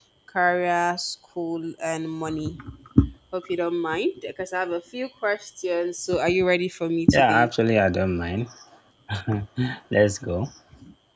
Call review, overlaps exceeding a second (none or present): none